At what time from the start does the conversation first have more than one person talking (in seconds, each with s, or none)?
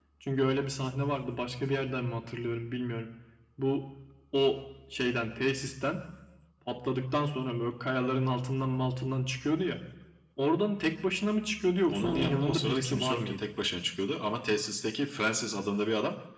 11.9 s